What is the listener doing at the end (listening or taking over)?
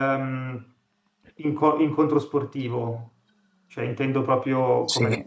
taking over